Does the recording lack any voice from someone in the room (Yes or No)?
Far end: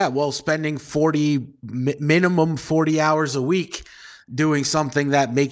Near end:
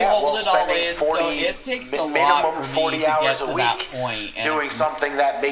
No